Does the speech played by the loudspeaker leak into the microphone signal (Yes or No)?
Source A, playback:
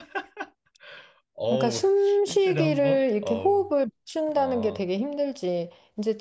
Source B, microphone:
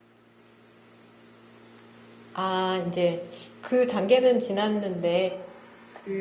No